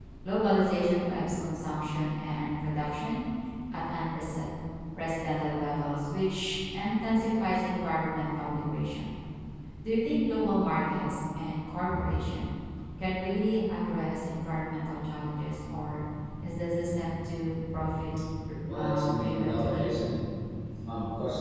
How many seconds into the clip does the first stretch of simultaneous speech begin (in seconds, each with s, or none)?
18.7 s